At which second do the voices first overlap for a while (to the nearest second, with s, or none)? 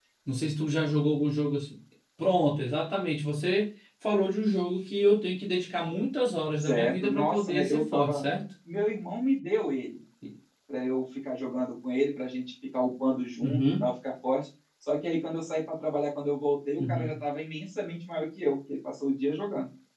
7 s